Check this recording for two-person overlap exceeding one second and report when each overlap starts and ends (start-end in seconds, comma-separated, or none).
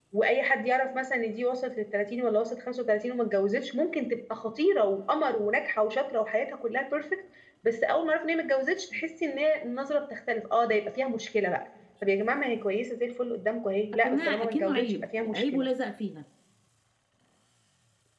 14.0-15.6